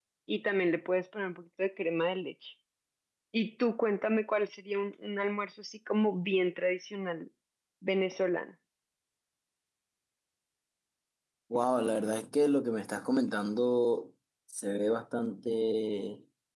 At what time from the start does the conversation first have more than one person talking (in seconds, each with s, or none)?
none